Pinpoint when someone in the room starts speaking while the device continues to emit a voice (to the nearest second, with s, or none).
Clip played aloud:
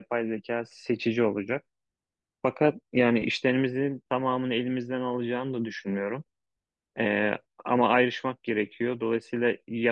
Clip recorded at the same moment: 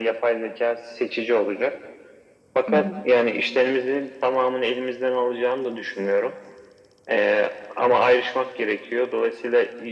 3 s